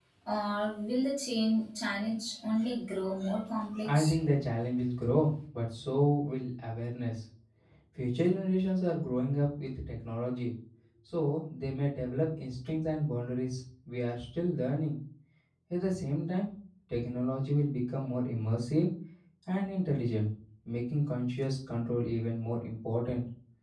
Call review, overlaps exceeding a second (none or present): none